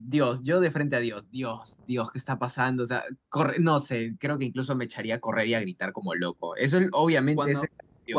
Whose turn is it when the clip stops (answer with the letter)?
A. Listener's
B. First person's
A